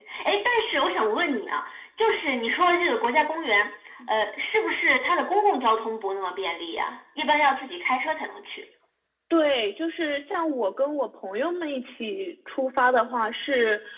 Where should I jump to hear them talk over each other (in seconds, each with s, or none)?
none